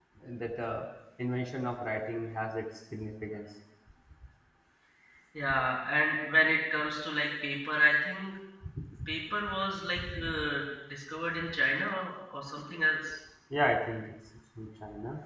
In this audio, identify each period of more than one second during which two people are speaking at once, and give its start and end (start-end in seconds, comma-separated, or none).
none